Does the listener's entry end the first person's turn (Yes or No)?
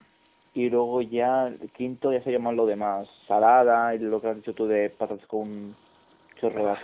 No